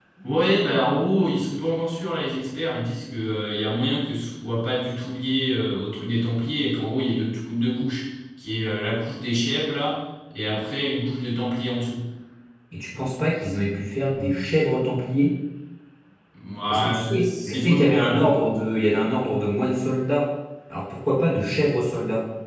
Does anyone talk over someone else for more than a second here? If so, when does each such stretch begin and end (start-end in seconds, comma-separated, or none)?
16.7-18.3